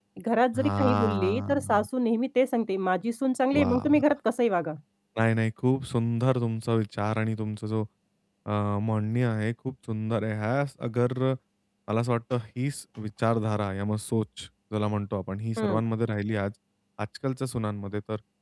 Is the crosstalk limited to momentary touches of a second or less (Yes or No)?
No